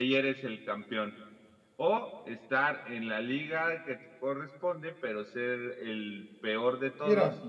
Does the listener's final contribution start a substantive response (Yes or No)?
No